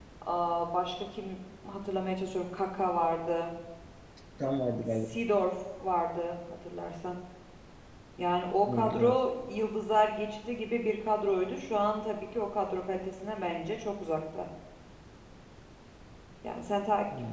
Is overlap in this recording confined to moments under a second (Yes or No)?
Yes